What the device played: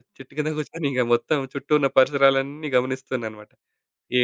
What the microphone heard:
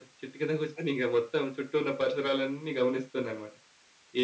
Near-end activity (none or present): none